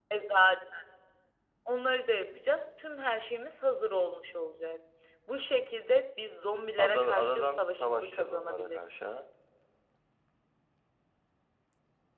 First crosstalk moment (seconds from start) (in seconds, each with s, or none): 6.8 s